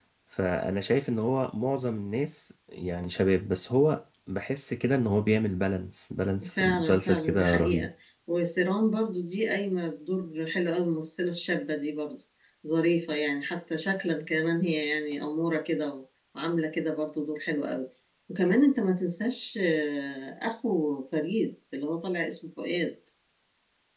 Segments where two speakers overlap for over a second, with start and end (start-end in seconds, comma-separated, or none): 6.6-7.9